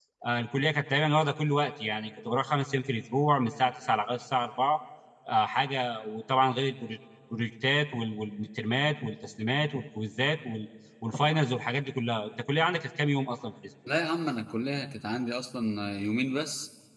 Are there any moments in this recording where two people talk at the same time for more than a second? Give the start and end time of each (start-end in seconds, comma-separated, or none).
none